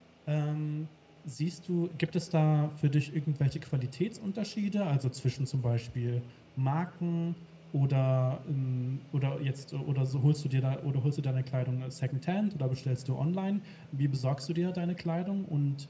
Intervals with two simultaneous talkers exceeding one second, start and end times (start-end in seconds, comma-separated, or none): none